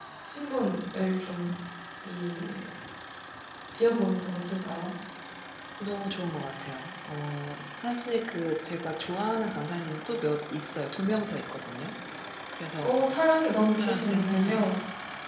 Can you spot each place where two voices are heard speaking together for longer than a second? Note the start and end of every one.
13.4-14.7

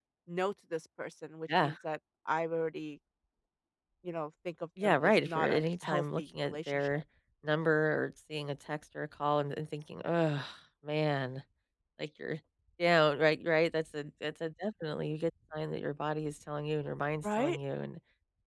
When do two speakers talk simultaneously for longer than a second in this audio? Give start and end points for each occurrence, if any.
4.8-7.0

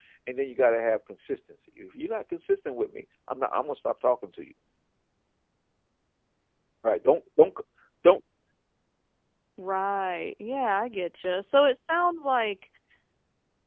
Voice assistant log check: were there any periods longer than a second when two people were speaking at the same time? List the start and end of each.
none

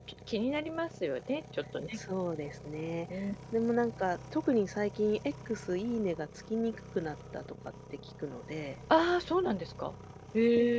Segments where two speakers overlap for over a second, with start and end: none

